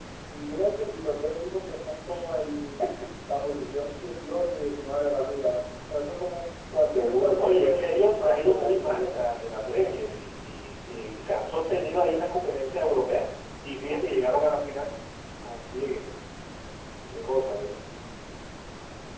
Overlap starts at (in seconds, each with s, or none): 6.8 s